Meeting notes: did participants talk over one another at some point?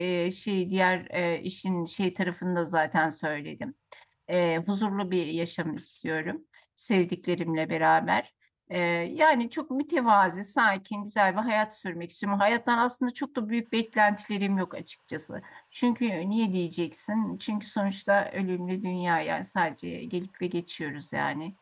No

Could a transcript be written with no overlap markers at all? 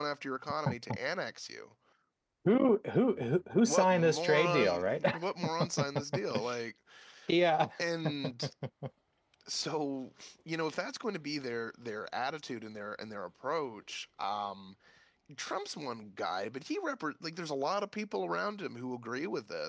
No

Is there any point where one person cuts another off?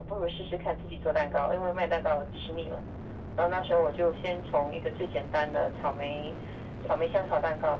No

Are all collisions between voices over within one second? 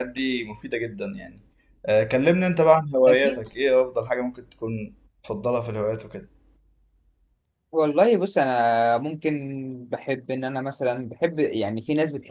Yes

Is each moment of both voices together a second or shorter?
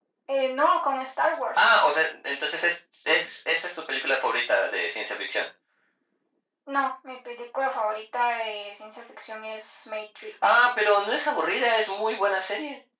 Yes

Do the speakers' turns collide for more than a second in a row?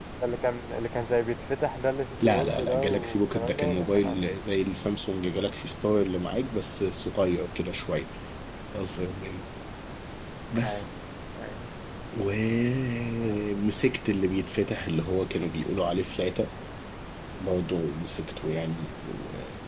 Yes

